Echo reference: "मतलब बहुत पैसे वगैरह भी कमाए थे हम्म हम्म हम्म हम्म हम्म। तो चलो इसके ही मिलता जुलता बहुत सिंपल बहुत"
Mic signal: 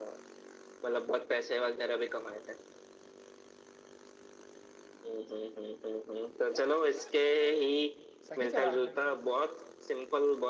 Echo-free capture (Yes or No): No